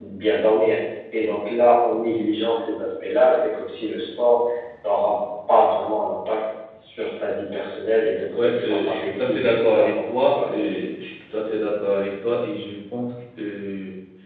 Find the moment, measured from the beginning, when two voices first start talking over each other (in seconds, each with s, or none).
8.3 s